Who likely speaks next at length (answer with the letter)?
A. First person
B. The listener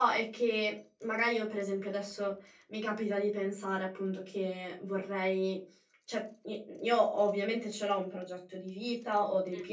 A